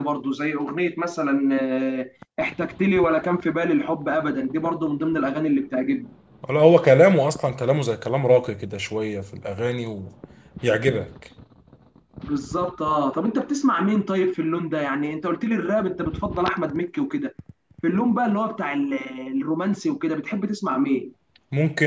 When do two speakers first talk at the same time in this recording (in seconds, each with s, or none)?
none